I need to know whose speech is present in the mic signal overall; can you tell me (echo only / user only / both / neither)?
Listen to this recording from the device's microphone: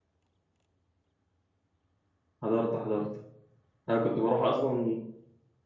user only